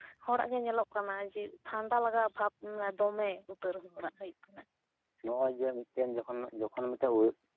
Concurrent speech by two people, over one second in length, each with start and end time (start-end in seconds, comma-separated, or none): none